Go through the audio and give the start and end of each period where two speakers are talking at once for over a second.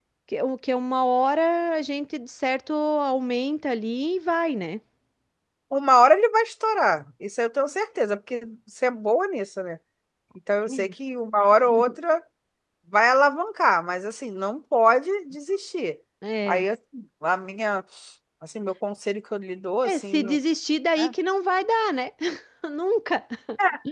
none

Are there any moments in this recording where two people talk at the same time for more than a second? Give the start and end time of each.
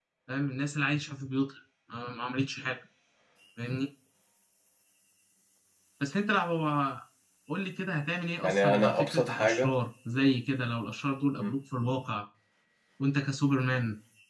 8.4-9.8

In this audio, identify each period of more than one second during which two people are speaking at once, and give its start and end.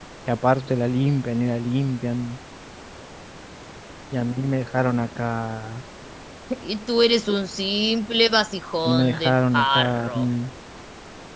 8.8-10.2

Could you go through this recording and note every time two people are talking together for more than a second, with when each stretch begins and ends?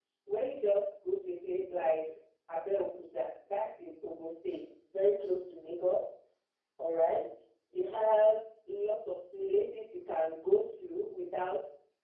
none

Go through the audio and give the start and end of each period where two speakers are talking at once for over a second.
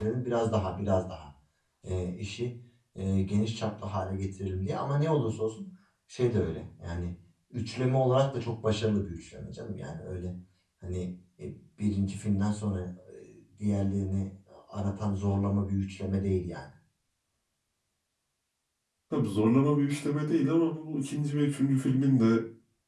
none

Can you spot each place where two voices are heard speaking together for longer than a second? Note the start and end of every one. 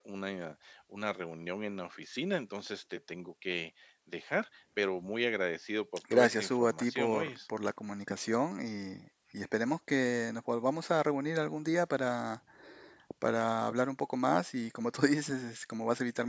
6.1-7.4

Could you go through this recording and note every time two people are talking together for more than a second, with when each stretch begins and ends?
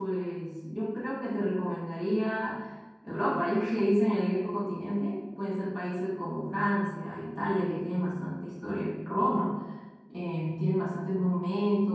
none

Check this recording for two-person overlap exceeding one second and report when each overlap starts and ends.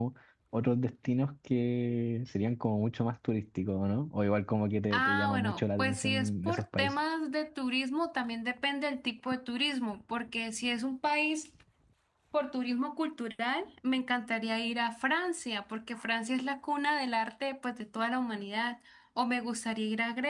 4.9-6.9

